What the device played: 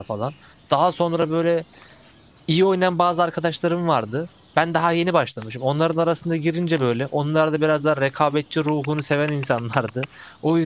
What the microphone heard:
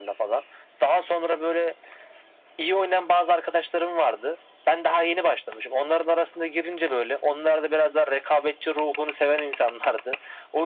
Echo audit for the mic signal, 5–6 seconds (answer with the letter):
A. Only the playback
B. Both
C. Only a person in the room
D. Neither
A